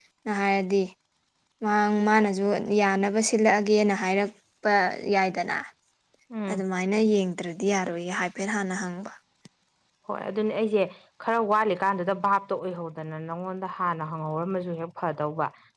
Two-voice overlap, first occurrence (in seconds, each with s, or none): none